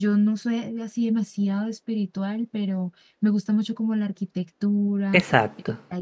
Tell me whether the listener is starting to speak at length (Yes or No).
No